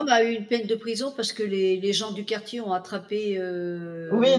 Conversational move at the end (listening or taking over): taking over